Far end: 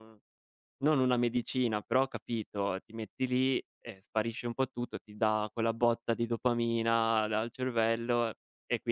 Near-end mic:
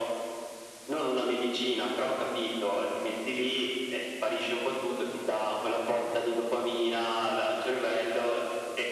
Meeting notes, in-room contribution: none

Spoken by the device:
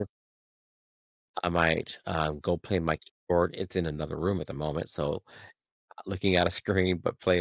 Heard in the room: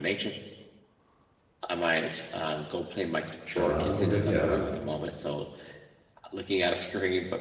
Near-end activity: present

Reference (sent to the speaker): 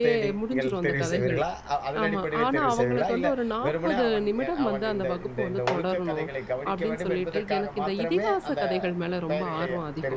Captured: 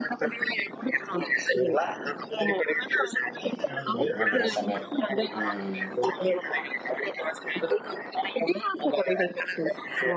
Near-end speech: present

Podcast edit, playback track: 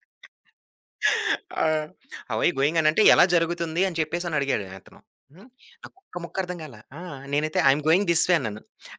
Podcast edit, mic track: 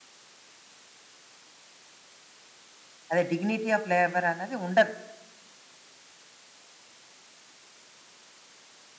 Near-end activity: present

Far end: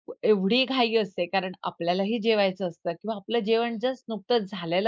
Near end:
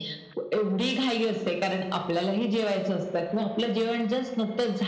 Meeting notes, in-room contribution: none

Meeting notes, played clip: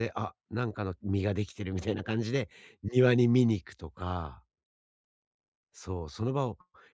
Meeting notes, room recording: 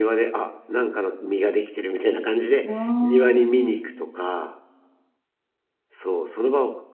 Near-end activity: present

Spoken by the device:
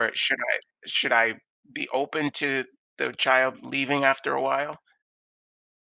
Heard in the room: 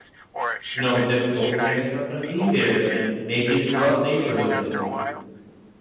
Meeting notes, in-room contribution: present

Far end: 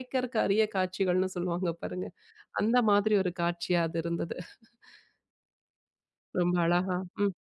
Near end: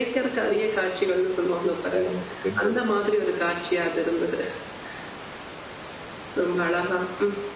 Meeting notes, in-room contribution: present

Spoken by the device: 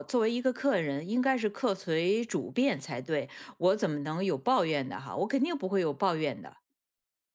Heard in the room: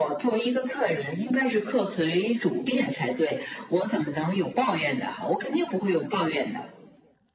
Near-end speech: none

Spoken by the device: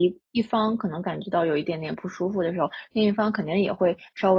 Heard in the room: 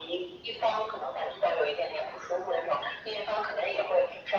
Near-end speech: none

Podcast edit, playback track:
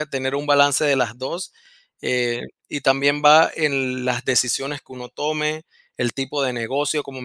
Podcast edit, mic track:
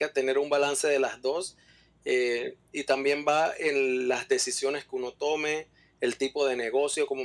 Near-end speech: none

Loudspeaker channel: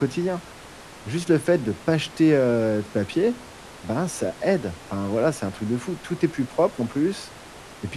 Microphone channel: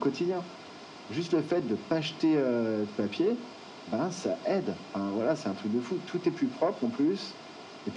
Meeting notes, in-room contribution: none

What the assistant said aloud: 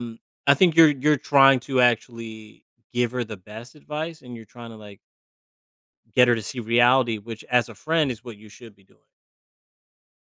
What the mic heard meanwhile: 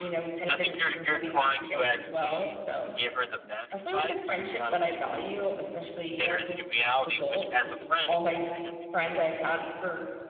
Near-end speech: present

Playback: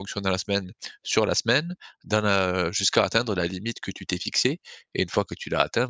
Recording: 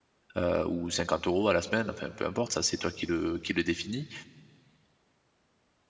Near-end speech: present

